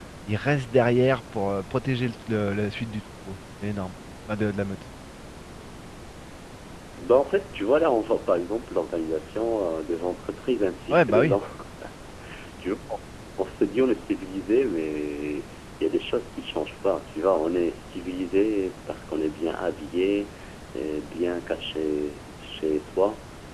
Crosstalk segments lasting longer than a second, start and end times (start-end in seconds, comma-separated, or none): none